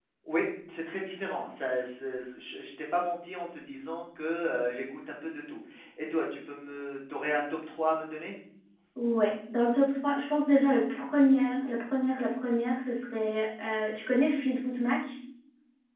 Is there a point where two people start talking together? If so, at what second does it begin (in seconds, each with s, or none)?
none